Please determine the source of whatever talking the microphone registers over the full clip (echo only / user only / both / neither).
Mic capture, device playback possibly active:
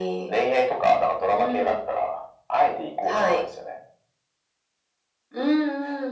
echo only